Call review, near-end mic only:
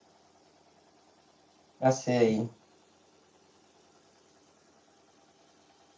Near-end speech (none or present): present